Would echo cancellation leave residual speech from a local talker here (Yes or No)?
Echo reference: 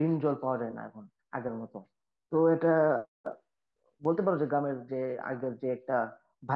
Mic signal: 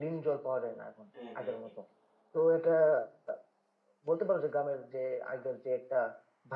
Yes